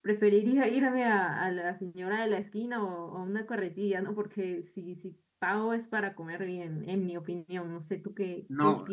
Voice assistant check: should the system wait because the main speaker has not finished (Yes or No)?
No